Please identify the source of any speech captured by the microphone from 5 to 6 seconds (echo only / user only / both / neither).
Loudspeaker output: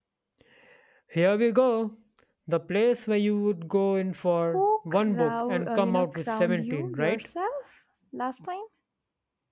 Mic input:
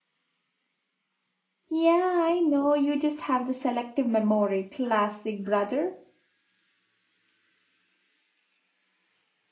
user only